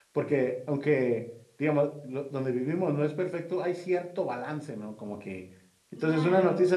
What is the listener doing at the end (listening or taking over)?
listening